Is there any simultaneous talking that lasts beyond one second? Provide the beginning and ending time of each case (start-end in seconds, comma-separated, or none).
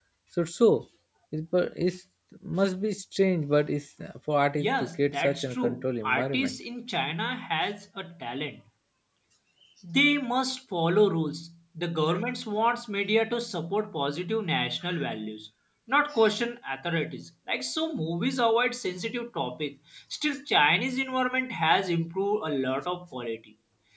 4.6-6.6